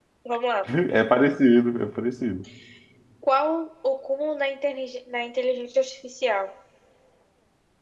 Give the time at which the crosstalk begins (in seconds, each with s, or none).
none